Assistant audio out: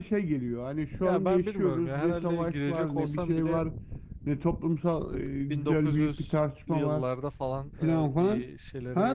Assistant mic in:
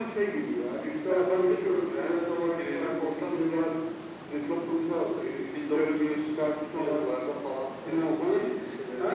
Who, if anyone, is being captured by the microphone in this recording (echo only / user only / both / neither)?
echo only